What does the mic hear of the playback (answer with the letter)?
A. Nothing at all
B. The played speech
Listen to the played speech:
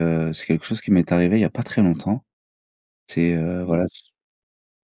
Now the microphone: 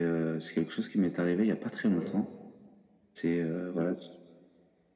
B